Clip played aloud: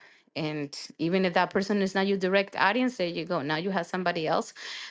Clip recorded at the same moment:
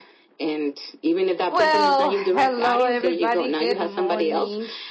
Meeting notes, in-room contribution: present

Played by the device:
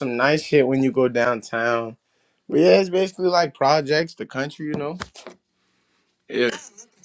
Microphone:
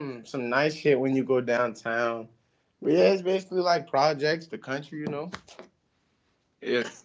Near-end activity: none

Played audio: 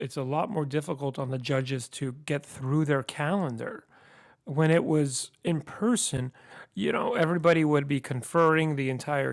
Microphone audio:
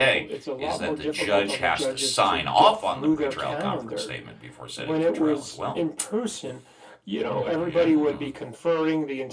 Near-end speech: present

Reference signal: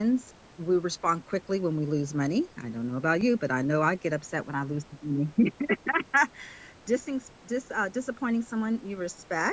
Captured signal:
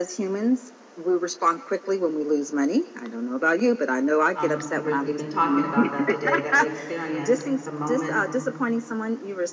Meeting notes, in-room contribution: present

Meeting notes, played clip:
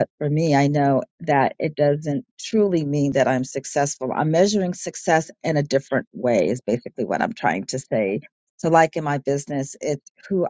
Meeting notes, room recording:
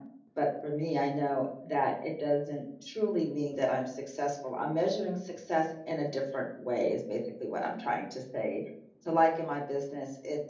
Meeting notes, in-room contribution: none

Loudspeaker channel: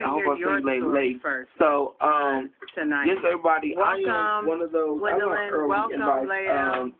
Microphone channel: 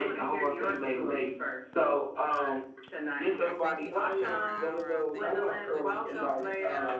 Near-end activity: present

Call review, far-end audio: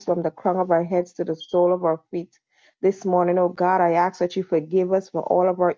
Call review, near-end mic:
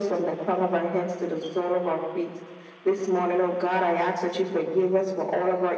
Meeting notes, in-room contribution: none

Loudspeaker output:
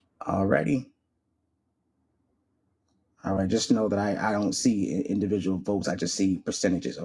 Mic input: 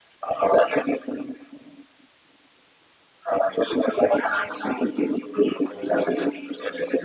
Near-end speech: none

